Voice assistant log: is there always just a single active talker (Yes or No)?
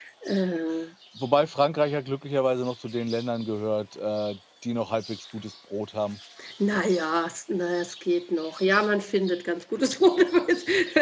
Yes